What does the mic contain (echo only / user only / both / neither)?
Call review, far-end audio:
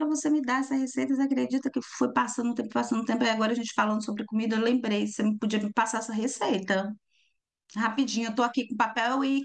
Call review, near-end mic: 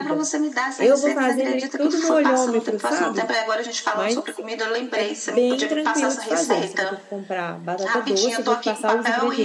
both